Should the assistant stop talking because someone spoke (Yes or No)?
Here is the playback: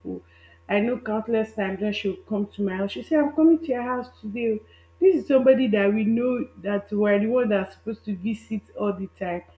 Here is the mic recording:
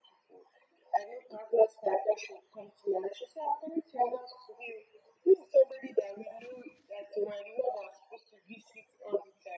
No